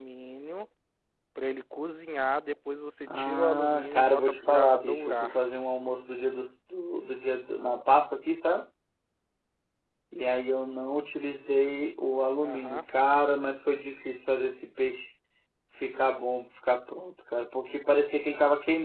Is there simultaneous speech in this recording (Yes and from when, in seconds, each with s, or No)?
Yes, from 3.1 s